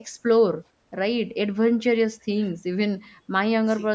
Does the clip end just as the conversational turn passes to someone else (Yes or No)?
No